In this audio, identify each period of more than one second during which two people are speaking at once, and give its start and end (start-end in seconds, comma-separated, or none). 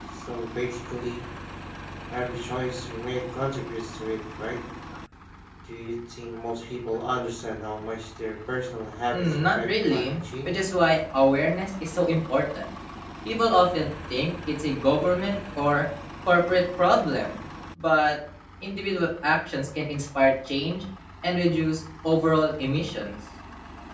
9.1-10.6